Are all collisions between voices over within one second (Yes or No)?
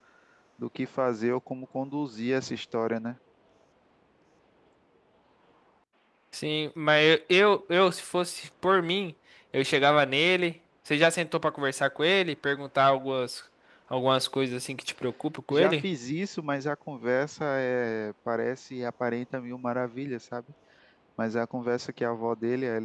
Yes